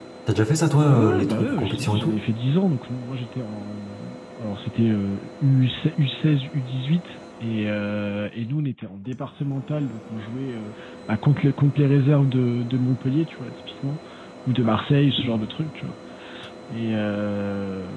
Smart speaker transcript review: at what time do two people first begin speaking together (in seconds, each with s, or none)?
0.9 s